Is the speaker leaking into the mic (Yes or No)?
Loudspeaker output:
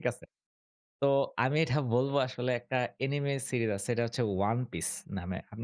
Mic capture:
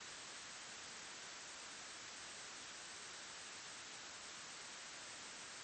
No